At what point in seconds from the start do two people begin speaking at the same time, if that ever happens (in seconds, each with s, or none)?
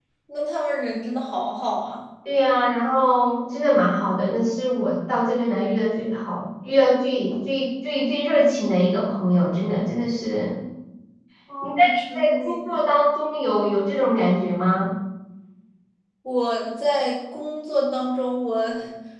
11.6 s